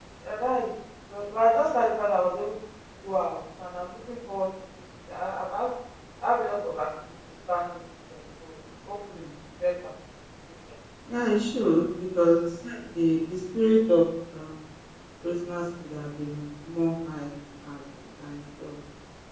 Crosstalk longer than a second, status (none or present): none